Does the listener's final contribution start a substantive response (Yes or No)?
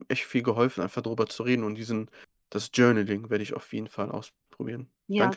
Yes